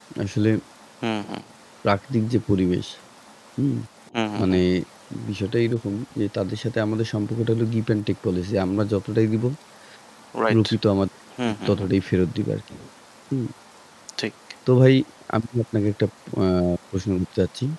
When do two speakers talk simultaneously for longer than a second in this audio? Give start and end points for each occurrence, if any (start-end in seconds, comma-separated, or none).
none